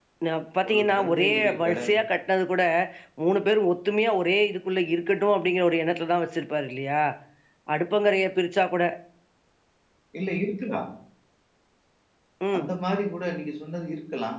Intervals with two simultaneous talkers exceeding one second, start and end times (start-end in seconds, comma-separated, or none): 0.7-1.9